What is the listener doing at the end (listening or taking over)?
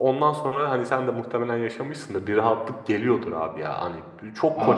listening